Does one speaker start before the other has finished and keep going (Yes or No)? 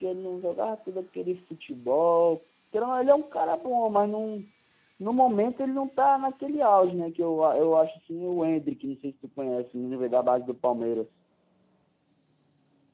No